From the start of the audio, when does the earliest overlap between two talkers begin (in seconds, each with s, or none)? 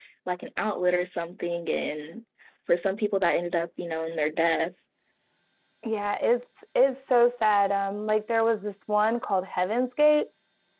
none